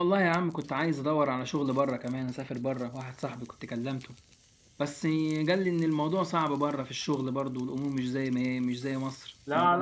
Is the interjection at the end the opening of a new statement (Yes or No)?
Yes